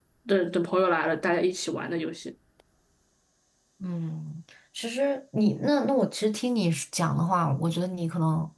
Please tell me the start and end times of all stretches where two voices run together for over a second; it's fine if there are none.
none

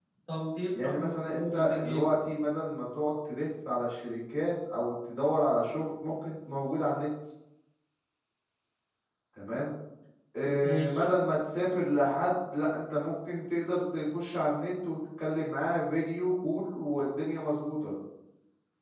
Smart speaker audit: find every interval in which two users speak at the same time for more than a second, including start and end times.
0.8-2.1

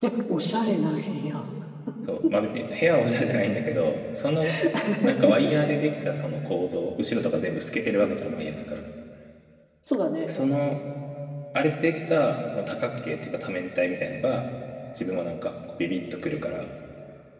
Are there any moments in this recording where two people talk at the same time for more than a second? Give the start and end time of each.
none

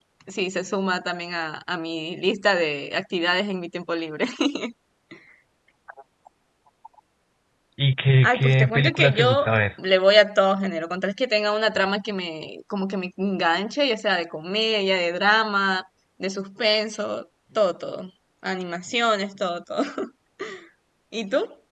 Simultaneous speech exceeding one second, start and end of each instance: 8.2-9.6

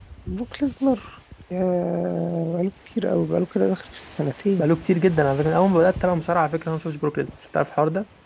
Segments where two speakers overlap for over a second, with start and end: none

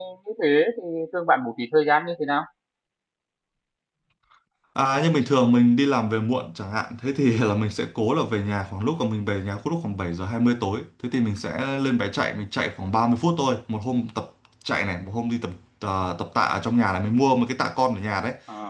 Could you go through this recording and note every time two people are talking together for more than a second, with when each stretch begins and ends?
none

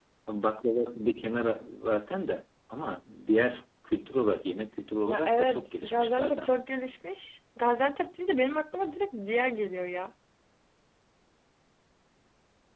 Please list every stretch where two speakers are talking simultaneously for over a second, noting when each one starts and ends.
5.1-6.6

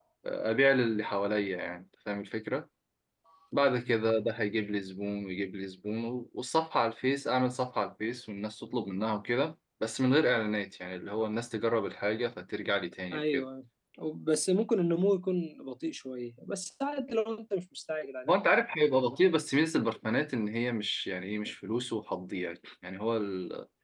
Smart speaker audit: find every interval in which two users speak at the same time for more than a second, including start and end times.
none

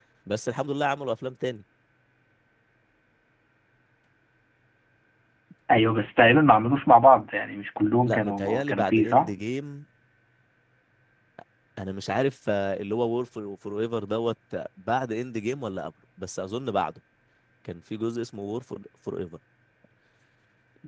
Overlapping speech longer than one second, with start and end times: 8.1-9.3

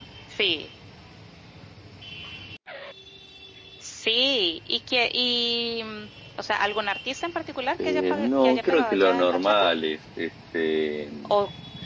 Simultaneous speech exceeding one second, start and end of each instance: 7.8-9.6

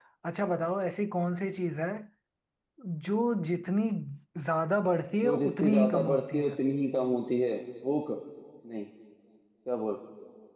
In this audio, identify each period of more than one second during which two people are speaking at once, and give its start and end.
5.2-6.5

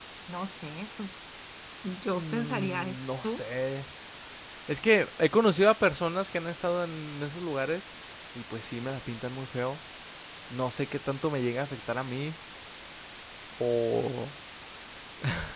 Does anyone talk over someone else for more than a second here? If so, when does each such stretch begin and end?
2.1-3.4

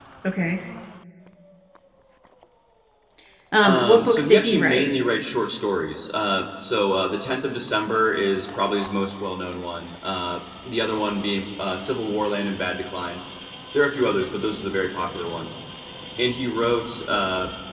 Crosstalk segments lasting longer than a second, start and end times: 3.6-4.9

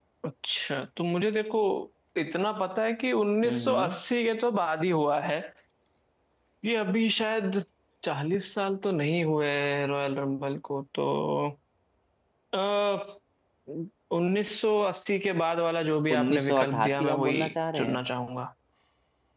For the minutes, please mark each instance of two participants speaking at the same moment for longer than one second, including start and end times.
16.1-17.4

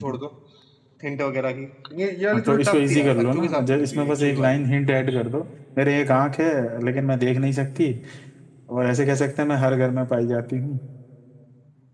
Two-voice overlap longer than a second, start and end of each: 2.3-4.6

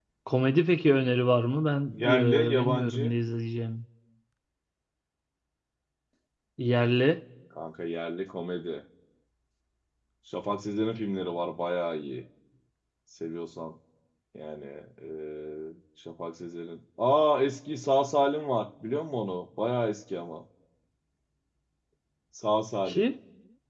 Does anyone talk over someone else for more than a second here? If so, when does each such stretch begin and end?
1.9-3.1

